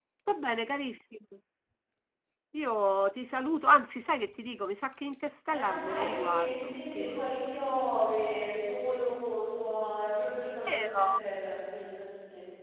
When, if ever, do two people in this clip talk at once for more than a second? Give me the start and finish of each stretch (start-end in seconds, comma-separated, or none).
5.5-7.3